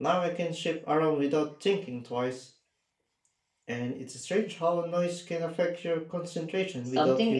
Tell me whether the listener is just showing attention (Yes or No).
No